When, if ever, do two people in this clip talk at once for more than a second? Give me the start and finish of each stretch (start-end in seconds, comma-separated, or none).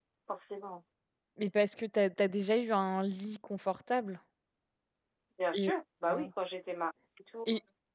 none